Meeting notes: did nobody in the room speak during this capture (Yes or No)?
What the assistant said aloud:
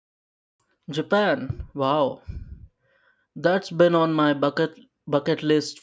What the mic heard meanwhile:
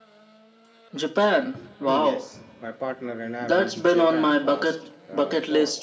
No